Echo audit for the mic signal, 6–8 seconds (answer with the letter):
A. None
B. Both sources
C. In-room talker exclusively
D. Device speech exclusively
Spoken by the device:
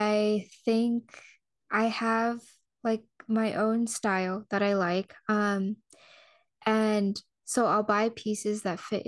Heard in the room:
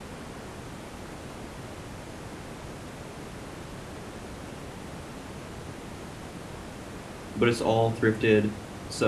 C